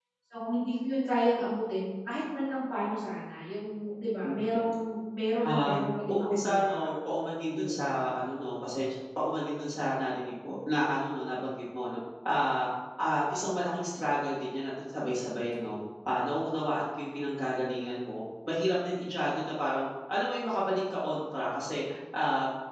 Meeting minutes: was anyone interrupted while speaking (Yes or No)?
Yes